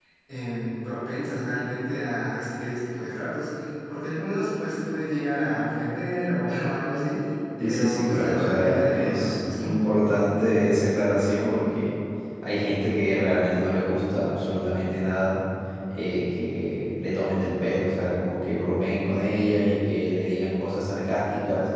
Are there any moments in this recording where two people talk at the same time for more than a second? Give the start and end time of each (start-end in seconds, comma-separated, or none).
7.6-9.7